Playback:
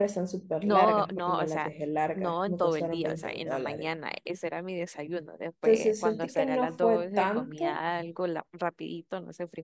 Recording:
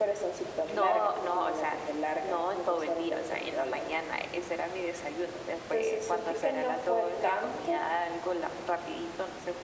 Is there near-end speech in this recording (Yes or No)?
No